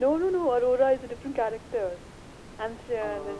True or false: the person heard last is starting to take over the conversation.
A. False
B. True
A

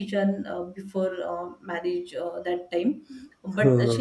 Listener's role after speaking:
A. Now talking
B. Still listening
B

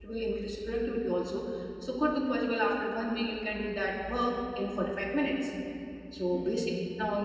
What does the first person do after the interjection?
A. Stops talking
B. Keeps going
B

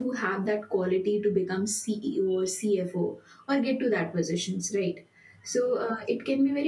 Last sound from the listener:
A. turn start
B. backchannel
B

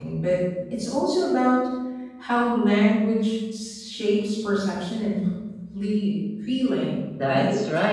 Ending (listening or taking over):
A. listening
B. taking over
B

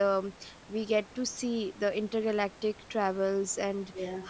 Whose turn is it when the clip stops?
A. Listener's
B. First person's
B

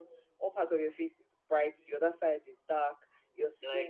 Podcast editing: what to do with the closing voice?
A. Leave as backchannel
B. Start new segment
B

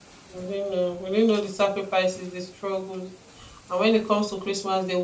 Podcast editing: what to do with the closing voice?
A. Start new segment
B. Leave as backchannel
B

